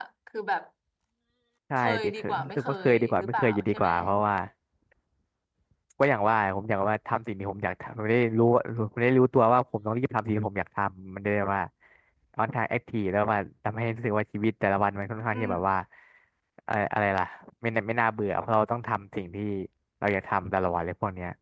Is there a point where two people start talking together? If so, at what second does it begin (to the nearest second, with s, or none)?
2 s